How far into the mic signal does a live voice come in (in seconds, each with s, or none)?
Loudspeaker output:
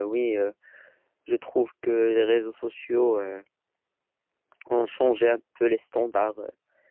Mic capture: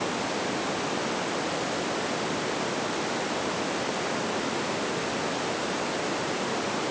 none